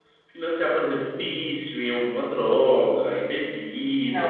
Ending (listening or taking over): taking over